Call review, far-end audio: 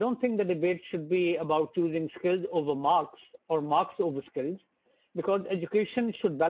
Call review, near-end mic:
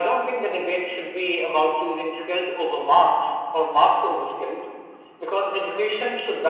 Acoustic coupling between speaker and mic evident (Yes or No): Yes